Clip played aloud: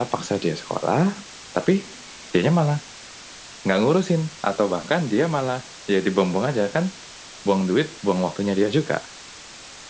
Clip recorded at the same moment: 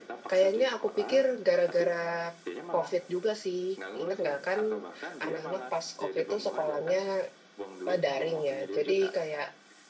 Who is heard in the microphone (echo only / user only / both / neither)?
both